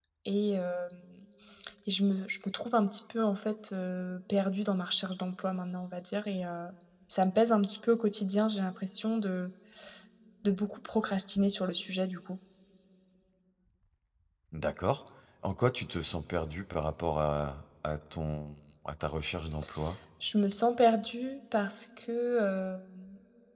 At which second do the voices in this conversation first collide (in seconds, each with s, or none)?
none